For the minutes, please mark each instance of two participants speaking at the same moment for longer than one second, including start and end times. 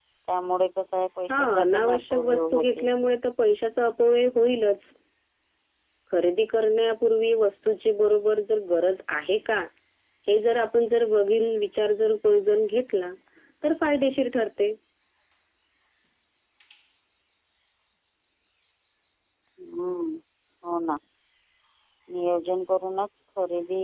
1.3-2.9

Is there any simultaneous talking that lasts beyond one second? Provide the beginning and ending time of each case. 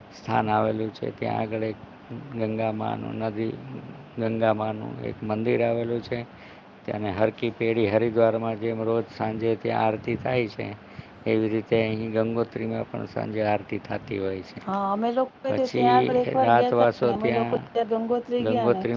15.5-17.6

